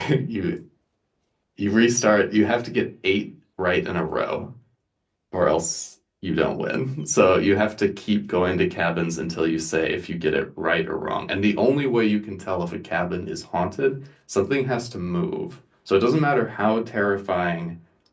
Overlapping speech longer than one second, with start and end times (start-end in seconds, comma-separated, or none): none